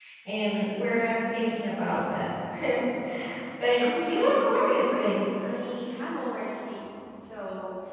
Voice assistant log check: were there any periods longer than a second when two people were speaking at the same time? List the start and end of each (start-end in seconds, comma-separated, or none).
3.8-5.2